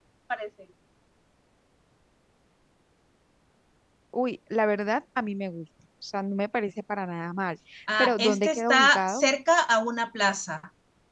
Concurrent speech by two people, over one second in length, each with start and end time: 8.0-9.2

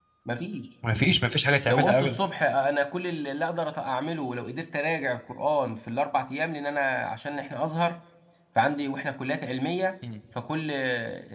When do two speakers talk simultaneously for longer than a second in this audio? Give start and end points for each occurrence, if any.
none

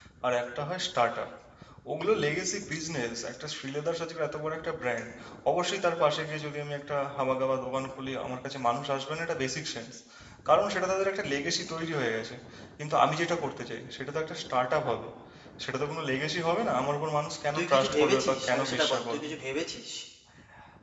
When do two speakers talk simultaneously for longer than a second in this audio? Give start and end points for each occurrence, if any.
17.5-19.3

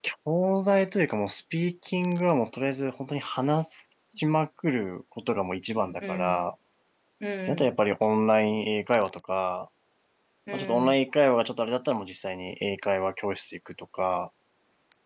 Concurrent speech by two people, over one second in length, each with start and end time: none

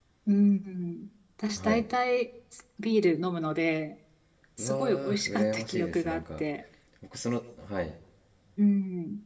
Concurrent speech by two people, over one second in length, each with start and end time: 4.6-6.4

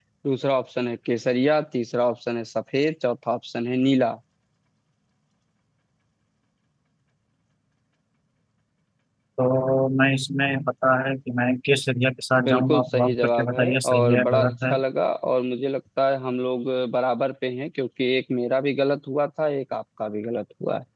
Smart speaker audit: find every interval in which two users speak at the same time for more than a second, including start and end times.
12.4-14.7

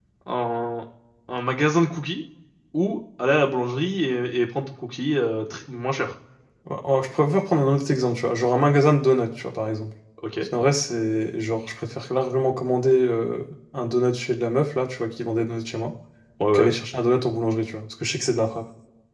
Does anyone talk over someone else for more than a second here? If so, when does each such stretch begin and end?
none

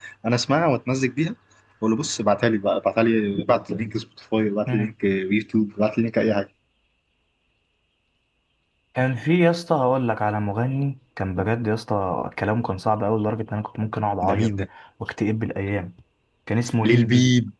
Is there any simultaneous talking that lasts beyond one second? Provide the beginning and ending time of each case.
none

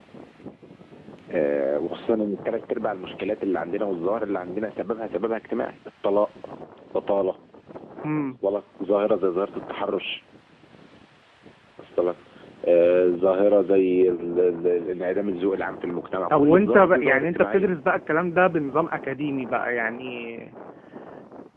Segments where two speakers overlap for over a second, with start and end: 16.4-17.6

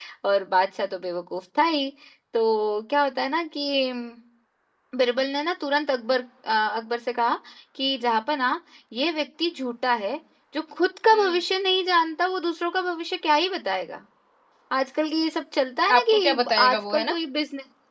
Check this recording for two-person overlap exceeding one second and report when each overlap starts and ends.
16.0-17.2

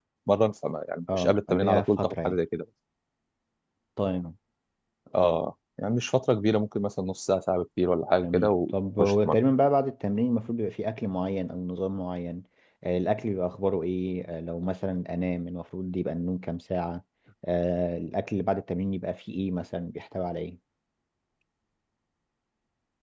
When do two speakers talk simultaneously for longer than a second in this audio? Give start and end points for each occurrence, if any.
1.1-2.4

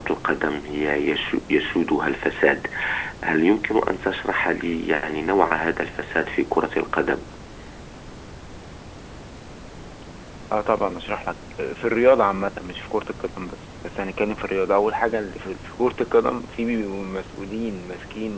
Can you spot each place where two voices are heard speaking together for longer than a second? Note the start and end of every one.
none

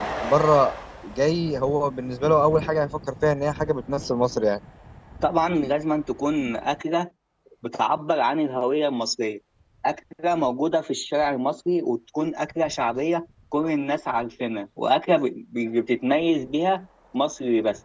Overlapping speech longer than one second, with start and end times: none

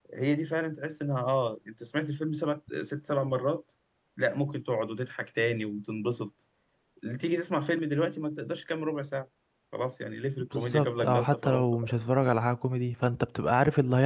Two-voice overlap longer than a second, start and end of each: 10.5-11.9

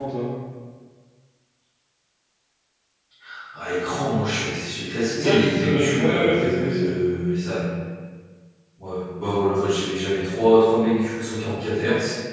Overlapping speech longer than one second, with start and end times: 5.2-7.0

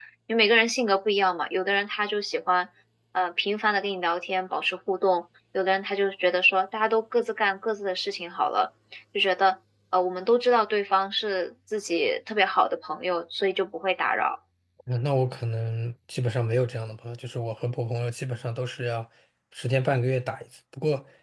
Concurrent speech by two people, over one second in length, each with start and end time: none

